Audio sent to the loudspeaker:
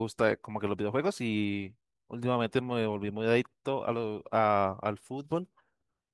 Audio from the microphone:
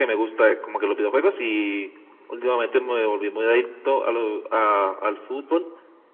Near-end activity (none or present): none